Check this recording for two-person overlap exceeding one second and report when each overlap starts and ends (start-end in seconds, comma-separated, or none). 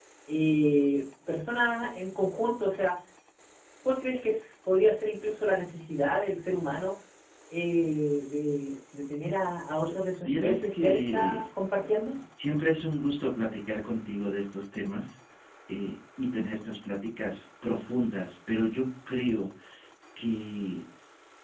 10.2-11.4